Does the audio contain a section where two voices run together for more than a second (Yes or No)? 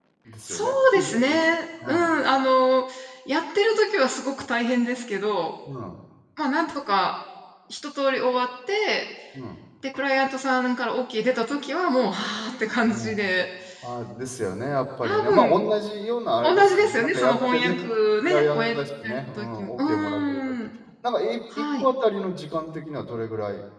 Yes